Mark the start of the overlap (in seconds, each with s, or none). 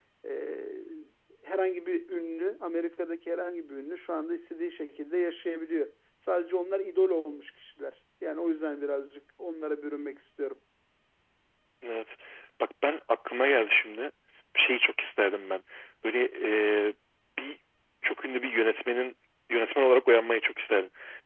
none